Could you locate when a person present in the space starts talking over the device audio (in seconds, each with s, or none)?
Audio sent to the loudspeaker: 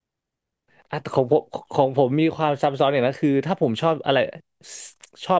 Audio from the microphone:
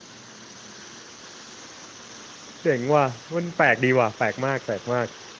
2.6 s